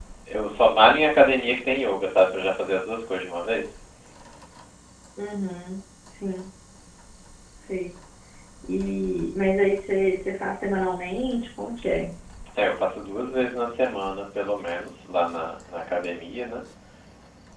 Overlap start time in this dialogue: none

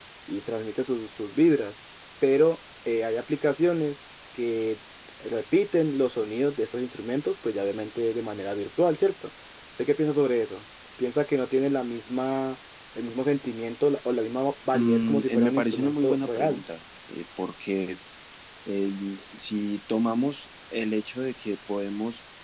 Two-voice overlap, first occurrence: 14.7 s

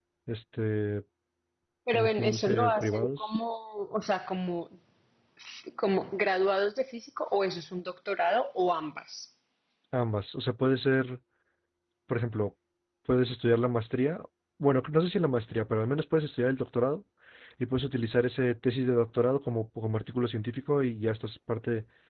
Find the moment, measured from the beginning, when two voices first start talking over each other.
1.9 s

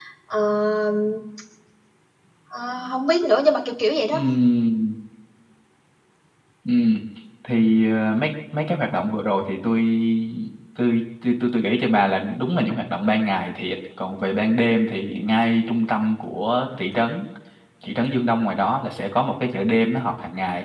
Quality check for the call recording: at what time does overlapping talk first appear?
none

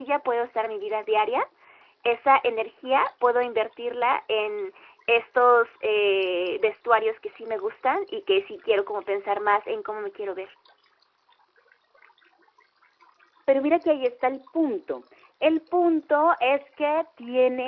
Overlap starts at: none

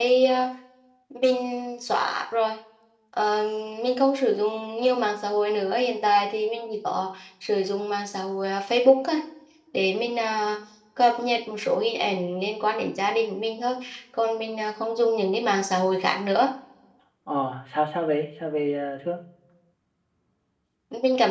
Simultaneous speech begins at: none

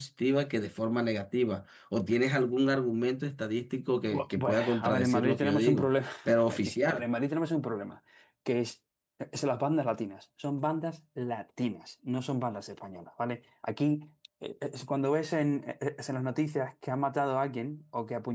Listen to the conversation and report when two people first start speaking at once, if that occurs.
3.9 s

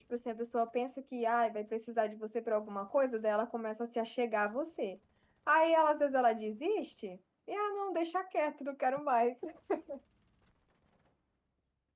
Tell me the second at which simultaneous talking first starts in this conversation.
none

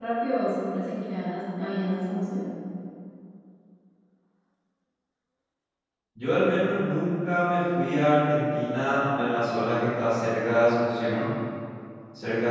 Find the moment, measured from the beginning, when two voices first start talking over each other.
none

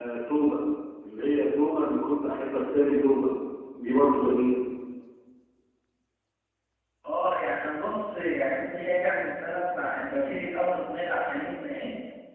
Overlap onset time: none

